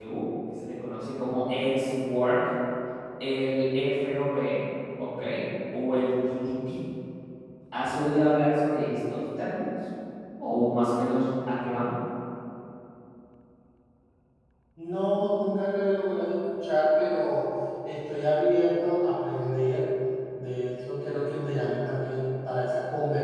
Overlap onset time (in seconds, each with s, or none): none